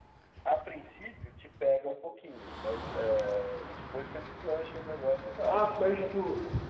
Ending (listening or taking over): taking over